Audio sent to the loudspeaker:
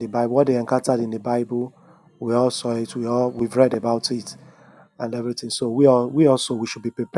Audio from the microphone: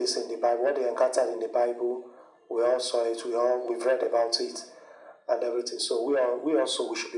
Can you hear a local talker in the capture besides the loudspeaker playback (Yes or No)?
No